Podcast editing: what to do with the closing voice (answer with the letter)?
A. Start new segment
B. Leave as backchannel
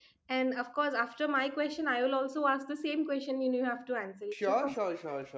A